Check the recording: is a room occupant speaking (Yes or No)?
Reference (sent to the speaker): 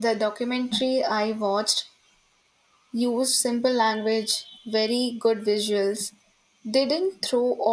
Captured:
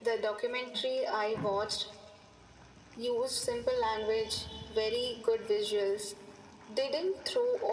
No